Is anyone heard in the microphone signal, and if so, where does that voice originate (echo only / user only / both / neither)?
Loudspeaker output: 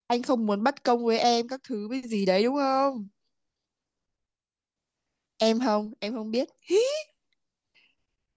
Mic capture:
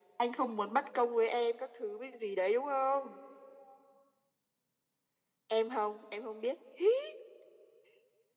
echo only